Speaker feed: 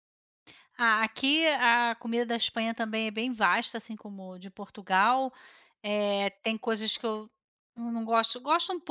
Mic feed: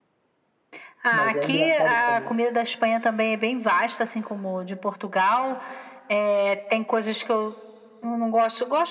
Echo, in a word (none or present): present